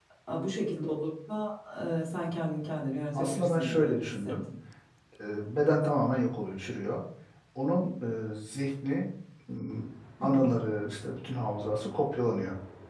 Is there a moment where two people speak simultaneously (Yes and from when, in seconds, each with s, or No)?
Yes, from 3.1 s